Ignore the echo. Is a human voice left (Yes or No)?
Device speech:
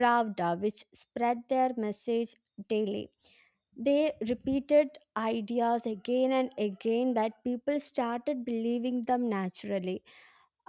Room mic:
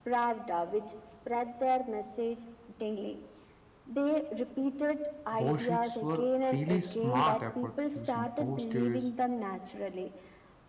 Yes